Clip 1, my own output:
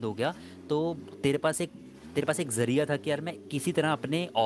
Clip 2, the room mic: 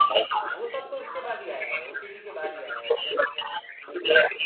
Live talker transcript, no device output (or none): हाँ वो सब तो इसके बाद ही आया है ओटीटी के बाद ही आया है भाई